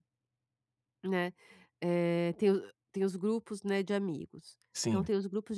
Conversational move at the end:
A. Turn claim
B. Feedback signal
B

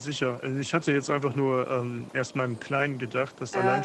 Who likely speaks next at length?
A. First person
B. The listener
A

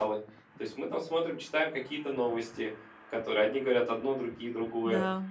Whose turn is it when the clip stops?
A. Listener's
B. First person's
A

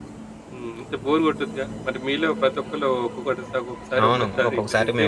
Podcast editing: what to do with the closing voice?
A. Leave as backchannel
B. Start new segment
B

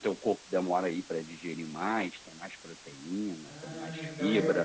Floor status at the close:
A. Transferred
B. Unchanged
A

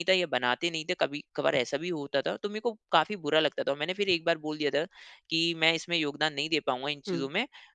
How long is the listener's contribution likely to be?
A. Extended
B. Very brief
B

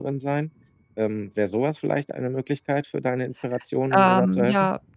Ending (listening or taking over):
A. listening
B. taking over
B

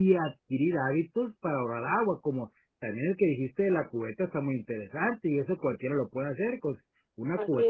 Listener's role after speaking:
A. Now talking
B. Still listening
B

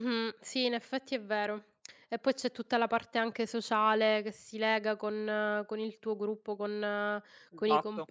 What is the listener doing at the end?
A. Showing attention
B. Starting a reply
B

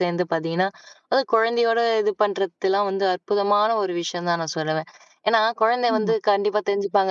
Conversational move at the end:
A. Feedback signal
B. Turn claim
A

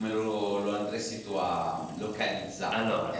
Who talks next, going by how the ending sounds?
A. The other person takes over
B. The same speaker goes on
B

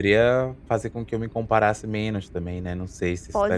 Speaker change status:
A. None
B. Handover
B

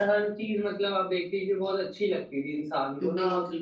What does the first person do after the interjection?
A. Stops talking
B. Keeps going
B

